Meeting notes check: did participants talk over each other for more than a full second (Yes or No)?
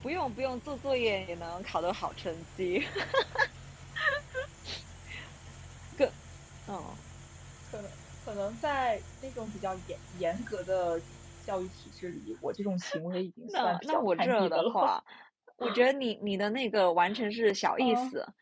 Yes